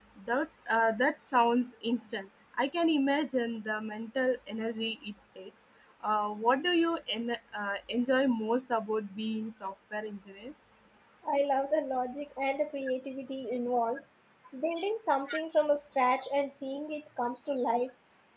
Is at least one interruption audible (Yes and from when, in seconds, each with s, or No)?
No